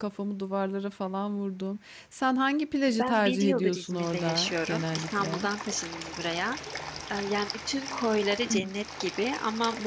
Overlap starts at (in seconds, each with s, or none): 3.0 s